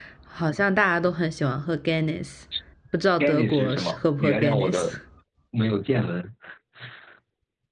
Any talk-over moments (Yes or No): Yes